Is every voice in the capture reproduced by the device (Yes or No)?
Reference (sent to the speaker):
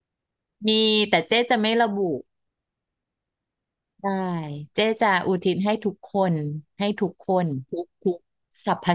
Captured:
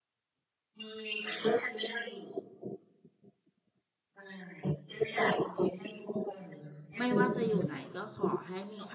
No